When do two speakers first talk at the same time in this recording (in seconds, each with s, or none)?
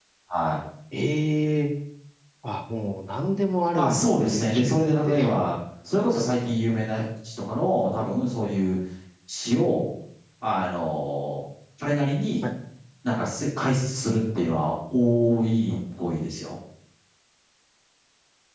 3.8 s